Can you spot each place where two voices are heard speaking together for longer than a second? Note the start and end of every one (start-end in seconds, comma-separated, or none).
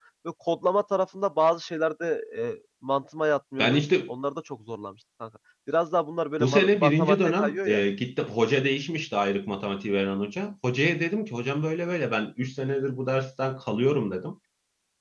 6.4-7.8